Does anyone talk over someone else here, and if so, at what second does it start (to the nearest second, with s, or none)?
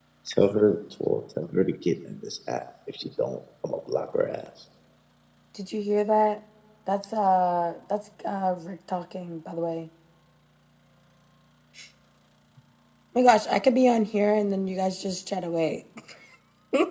none